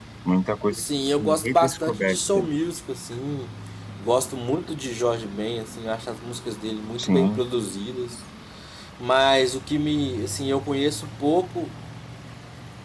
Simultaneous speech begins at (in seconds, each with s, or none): 0.7 s